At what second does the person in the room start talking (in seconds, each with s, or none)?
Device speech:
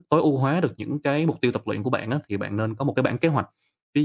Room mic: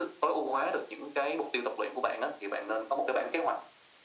none